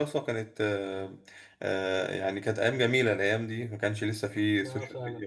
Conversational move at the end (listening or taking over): listening